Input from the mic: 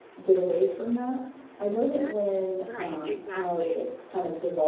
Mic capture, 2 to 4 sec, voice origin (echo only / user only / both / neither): both